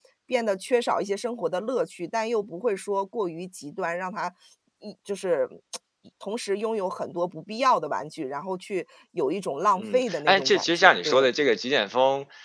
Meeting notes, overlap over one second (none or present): present